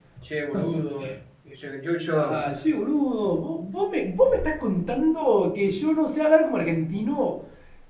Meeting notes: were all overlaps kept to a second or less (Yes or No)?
Yes